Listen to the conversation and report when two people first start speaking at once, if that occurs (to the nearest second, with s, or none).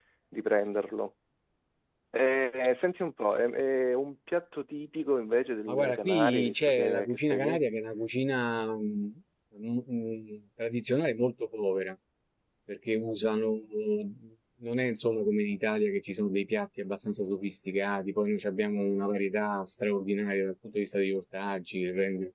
6 s